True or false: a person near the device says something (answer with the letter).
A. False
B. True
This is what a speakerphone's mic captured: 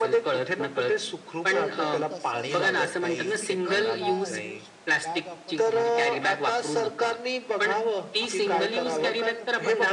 B